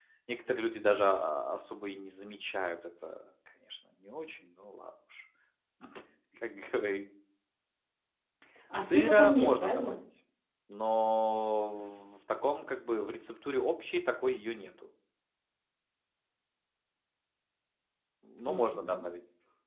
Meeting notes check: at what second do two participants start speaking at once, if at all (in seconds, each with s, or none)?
8.7 s